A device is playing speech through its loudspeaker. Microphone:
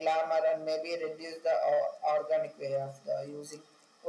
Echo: present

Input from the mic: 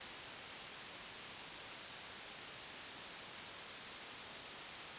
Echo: none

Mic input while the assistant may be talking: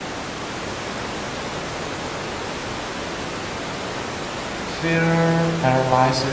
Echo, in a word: none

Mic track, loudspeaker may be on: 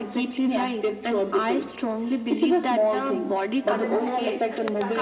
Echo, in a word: present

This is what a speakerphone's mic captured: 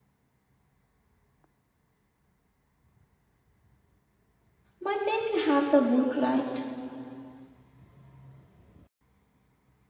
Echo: none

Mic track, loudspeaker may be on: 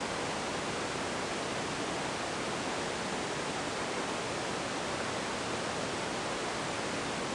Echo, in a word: none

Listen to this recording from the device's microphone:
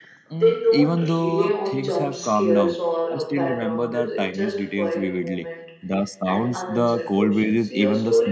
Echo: present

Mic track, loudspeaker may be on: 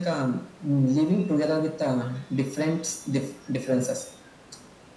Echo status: present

